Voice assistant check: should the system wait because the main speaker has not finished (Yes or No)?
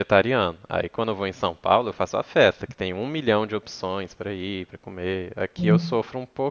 Yes